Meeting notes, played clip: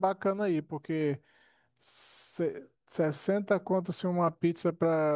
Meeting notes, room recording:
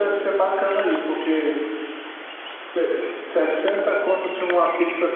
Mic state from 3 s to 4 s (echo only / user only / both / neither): echo only